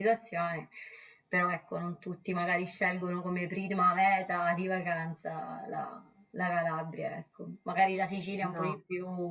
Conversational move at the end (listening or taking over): listening